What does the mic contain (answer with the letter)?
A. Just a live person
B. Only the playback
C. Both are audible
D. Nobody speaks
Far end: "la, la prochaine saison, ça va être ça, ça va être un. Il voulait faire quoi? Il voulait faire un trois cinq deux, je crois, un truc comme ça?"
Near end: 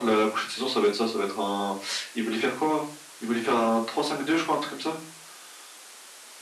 B